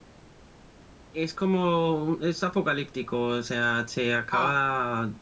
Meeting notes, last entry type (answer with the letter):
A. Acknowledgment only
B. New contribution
A